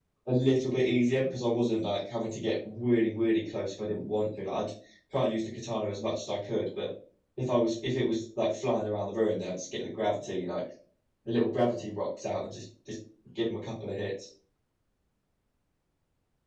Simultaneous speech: No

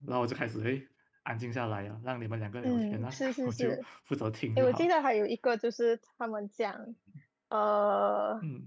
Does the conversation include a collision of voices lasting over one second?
Yes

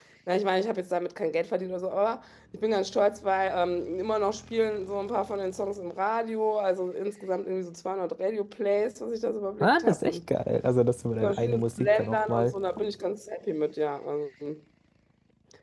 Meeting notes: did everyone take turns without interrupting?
No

